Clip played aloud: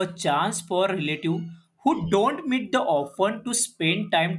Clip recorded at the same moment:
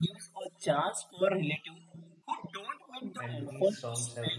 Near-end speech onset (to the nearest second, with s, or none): 3 s